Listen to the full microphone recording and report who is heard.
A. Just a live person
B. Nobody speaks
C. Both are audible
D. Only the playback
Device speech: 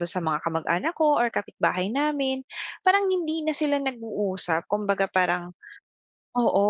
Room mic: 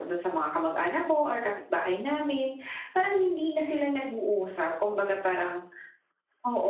D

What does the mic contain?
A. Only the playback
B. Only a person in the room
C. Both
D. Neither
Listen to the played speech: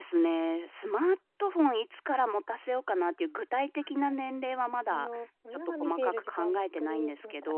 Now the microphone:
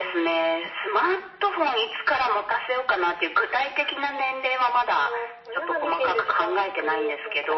A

